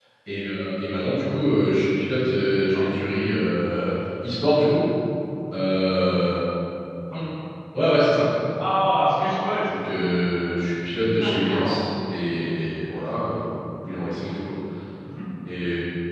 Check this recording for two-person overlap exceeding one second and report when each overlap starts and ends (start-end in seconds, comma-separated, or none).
none